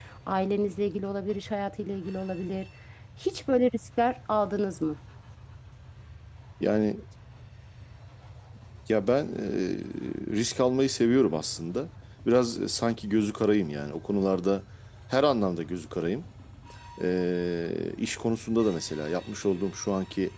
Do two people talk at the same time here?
No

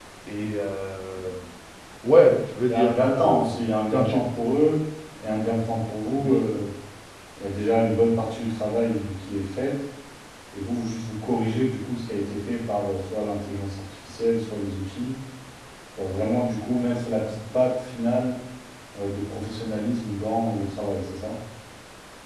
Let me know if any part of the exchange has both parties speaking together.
Yes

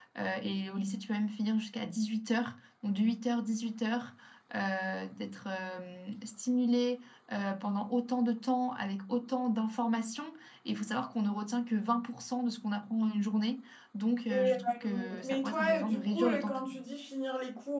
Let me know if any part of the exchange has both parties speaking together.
Yes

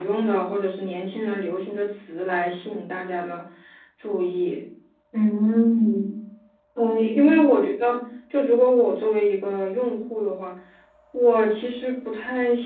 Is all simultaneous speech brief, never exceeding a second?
Yes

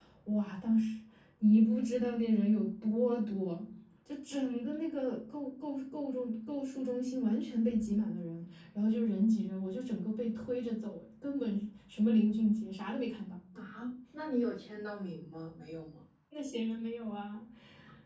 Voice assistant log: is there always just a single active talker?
Yes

